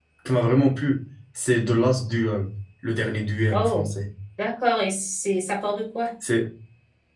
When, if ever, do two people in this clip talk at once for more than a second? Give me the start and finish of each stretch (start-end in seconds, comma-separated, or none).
none